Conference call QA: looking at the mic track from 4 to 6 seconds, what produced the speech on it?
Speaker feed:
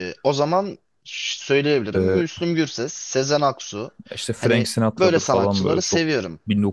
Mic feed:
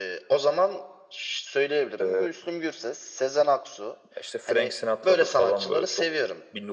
echo only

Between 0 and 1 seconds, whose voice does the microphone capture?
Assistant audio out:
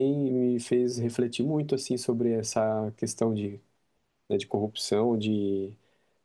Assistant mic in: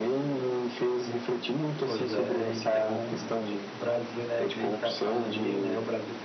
echo only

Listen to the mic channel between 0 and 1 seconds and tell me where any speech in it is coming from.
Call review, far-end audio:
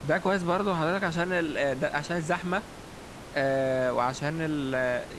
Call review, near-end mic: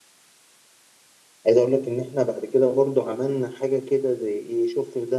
neither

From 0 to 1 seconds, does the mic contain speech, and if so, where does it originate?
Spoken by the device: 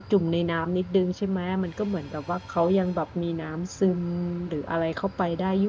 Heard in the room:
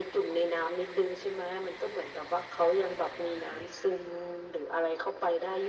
echo only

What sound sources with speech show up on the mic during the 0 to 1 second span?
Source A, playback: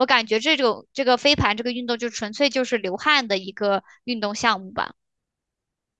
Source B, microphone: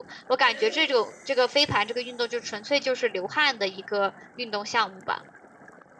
both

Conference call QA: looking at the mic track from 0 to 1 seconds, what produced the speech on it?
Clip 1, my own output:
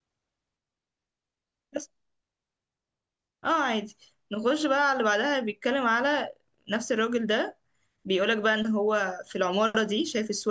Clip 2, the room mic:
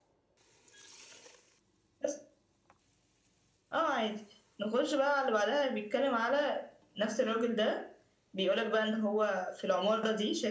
neither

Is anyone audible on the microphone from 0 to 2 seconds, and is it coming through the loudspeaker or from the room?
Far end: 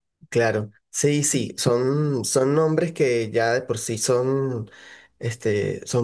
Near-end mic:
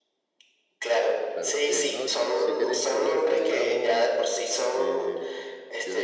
both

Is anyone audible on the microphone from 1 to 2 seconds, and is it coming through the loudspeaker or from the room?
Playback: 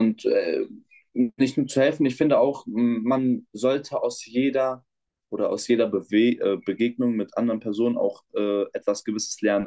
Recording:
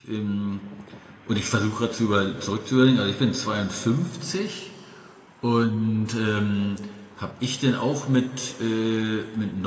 user only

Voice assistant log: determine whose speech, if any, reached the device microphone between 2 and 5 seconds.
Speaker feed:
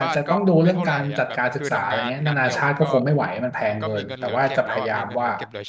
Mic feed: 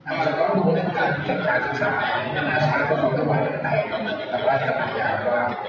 echo only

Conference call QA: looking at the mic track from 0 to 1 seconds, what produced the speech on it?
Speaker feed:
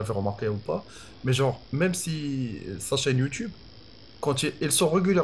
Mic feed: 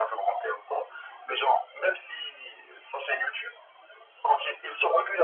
echo only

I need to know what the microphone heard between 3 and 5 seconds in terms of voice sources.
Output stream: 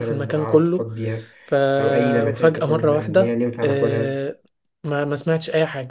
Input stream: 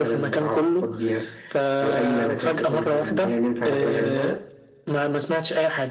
both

